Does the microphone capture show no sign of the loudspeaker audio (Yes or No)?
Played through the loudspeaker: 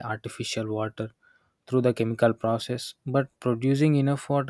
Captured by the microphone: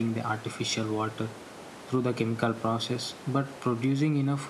No